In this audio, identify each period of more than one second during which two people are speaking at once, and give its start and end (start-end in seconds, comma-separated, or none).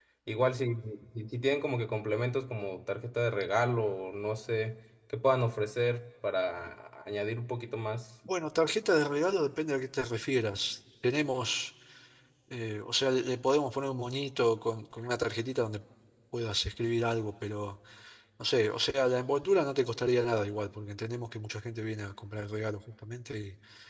none